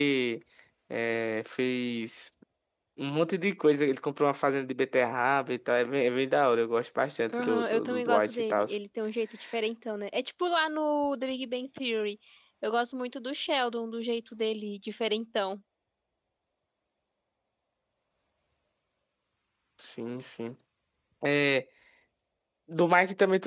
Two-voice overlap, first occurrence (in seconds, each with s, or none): 7.3 s